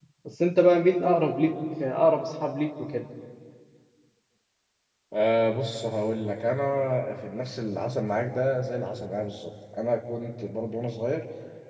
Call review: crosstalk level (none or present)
none